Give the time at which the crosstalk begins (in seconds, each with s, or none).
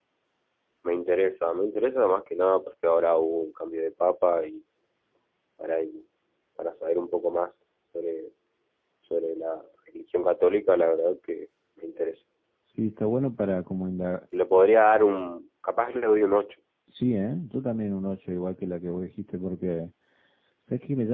none